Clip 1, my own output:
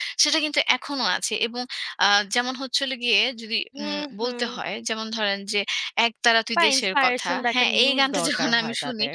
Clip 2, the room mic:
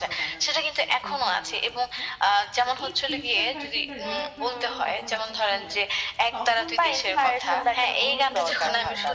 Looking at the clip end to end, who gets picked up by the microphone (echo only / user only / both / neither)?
both